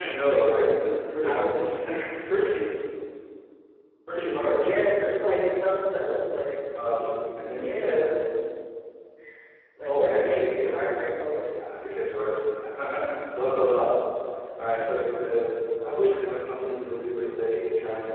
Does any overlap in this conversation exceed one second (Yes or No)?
Yes